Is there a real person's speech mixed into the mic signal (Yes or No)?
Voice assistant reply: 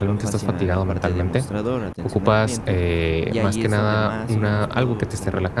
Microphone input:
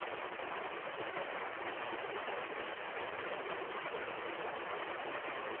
No